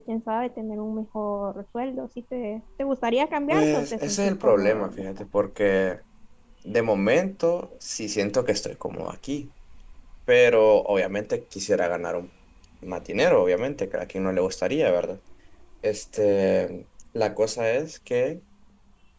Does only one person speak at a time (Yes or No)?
No